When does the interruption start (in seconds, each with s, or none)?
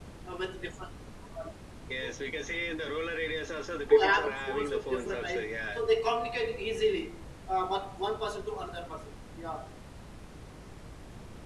3.9 s